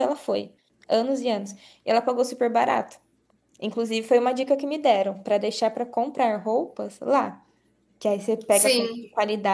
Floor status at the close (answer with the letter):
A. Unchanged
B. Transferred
A